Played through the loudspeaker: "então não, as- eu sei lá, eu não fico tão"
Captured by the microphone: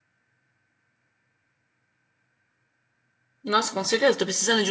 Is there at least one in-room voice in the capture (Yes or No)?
Yes